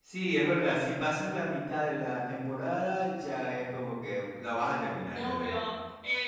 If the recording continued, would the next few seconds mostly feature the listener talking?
Yes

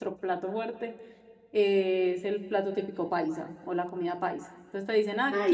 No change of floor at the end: Yes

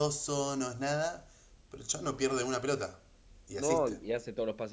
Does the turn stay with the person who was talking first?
No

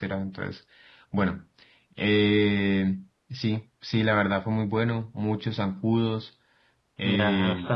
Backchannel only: No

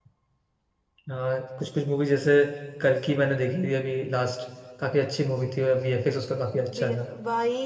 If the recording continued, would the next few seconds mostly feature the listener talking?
Yes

